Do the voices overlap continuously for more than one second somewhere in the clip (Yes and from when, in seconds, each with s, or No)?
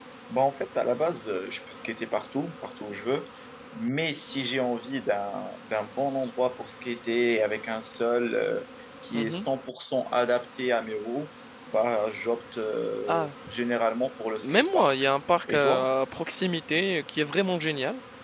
No